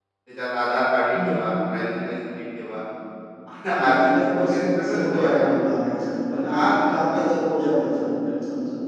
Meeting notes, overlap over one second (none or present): present